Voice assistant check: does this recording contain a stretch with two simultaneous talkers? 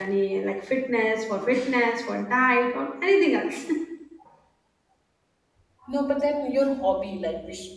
No

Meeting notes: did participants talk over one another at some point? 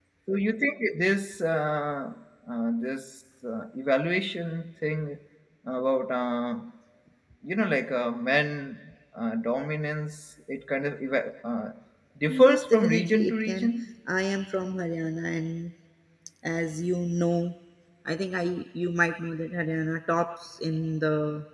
Yes, from 12.3 s

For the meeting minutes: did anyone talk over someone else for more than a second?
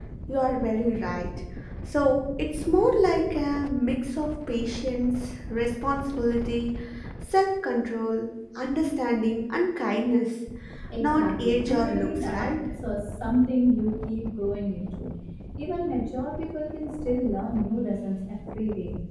Yes, from 11.0 s

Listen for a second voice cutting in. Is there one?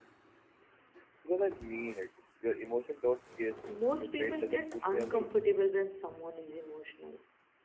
Yes, from 3.7 s

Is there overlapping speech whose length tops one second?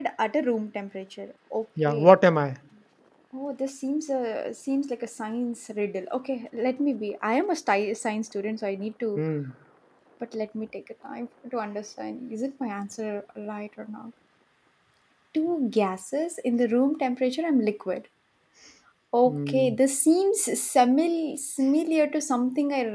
No

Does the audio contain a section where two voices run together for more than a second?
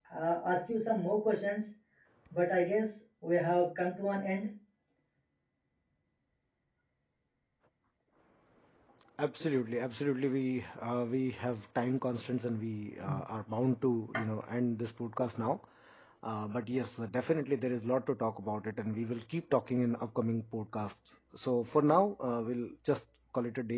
No

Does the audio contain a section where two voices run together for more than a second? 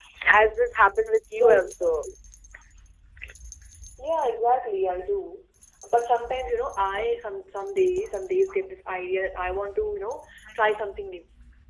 No

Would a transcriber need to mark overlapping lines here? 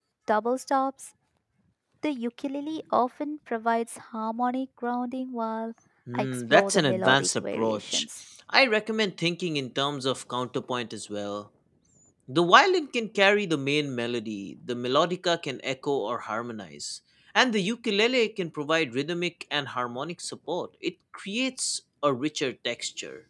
Yes, from 6.1 s

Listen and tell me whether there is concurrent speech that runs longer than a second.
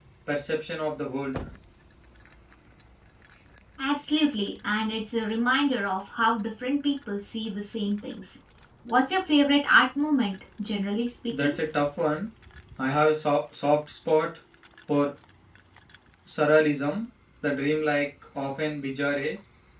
No

